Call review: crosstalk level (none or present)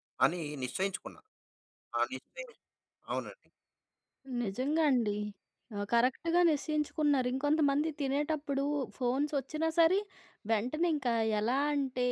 none